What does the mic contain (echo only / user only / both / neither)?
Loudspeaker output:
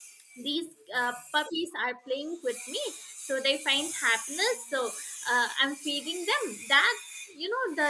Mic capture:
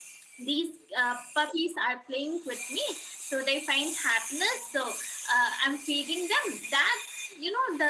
echo only